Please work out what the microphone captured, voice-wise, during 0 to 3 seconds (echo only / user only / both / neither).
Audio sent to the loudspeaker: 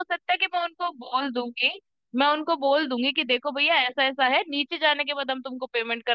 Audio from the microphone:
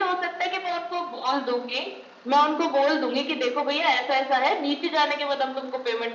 echo only